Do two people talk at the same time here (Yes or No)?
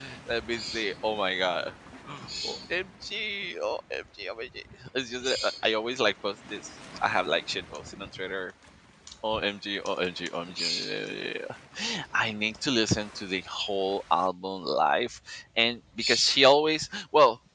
No